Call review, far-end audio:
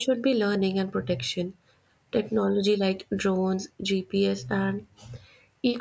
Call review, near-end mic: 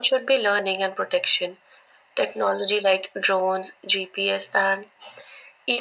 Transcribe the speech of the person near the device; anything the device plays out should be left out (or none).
none